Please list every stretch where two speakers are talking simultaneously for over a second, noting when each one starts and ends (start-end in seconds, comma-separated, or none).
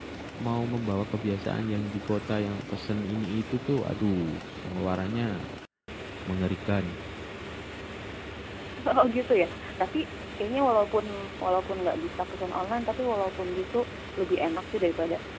none